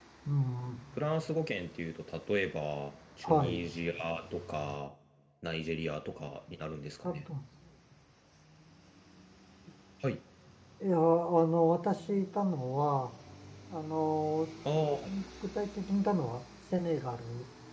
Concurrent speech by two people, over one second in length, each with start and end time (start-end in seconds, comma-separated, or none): none